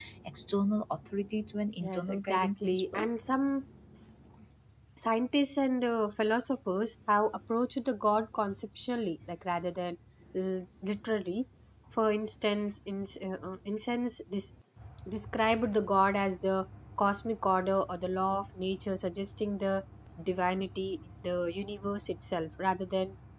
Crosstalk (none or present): present